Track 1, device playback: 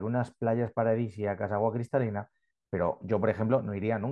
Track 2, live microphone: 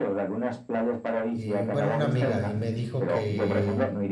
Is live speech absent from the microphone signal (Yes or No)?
No